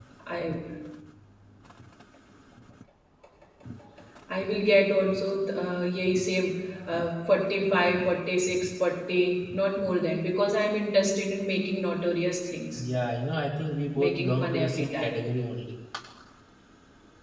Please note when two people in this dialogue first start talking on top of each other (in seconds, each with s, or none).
13.9 s